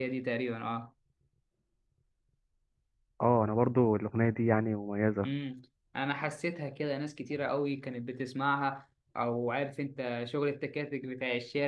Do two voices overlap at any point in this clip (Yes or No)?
No